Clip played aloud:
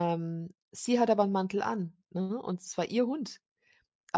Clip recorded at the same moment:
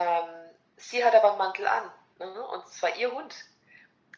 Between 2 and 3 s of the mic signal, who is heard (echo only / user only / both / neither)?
echo only